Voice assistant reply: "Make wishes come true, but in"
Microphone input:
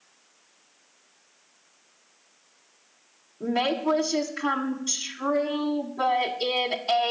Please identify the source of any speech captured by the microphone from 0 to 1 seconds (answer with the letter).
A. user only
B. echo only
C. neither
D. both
C